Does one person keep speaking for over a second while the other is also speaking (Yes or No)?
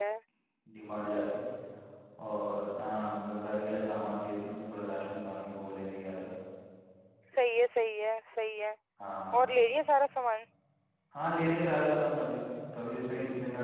No